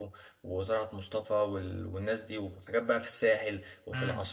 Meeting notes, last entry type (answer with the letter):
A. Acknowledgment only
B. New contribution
B